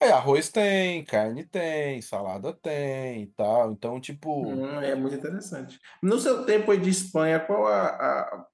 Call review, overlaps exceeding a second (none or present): none